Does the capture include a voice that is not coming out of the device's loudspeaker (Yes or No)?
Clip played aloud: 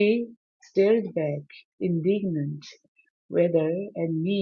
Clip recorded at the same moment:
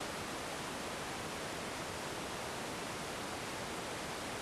No